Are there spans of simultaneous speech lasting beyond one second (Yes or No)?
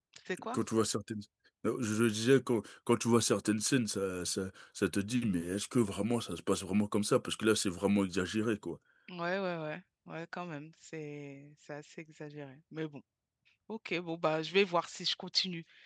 No